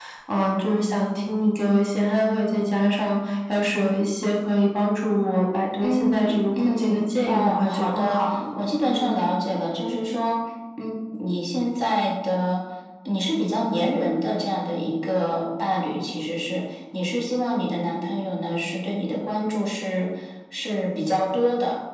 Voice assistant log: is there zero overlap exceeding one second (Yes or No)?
No